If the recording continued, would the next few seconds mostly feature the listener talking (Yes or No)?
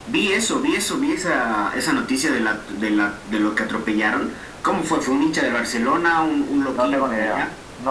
Yes